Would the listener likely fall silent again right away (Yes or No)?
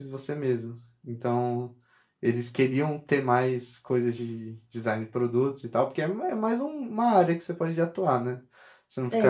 No